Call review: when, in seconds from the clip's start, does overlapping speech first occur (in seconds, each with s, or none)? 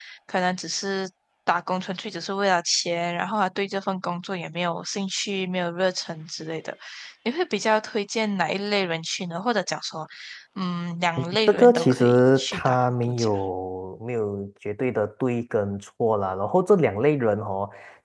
11.5 s